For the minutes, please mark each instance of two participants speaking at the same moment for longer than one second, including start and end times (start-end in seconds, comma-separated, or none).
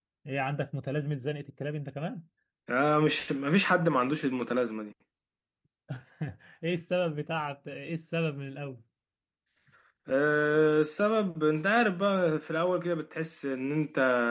none